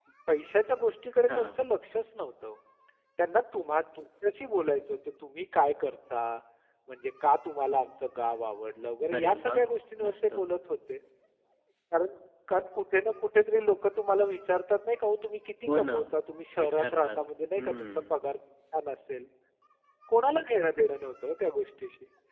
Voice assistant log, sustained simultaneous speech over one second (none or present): none